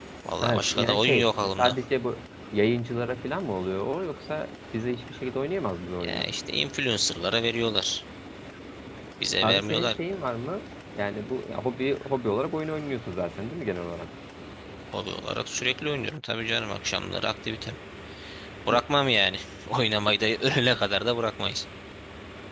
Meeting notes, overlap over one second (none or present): present